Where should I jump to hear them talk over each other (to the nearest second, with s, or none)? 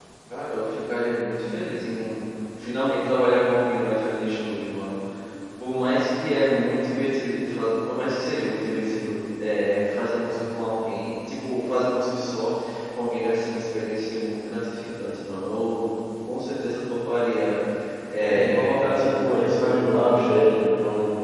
18 s